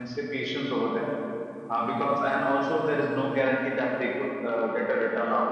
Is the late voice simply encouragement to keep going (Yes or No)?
No